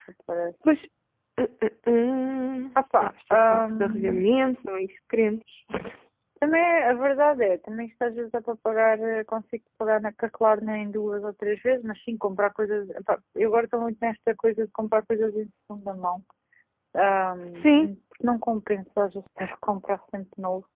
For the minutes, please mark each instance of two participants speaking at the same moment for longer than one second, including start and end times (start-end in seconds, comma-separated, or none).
3.0-4.2